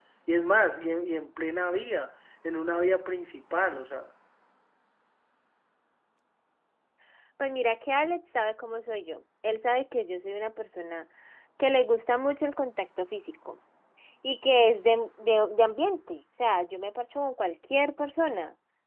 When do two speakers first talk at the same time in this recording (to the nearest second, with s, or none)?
none